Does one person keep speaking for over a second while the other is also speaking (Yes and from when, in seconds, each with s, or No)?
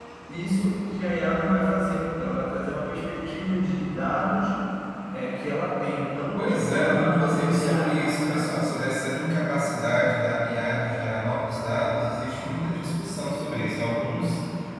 Yes, from 6.4 s